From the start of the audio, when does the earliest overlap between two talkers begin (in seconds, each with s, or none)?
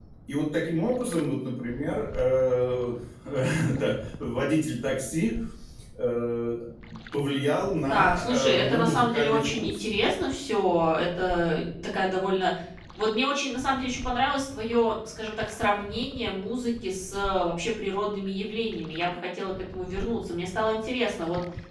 7.9 s